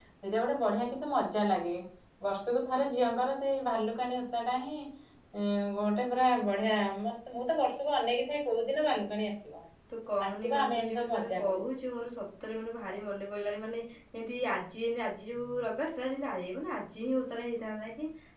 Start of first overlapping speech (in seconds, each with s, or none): 10.3 s